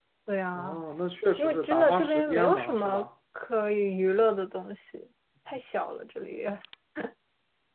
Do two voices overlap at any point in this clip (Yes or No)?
Yes